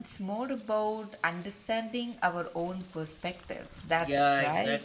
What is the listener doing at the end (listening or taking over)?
taking over